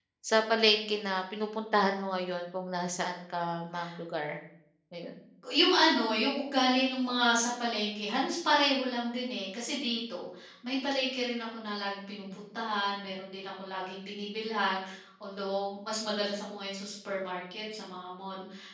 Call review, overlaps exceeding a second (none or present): none